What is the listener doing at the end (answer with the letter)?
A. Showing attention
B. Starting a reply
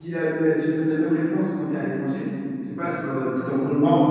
A